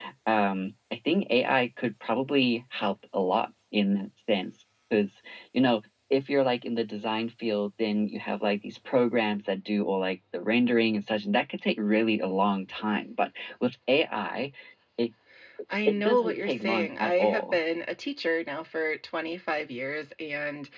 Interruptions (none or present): present